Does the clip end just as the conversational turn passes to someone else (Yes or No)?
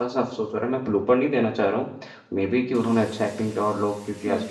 No